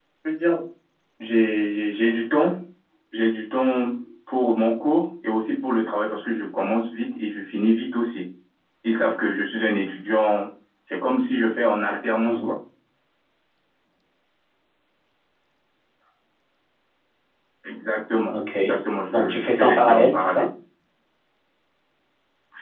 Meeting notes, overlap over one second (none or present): present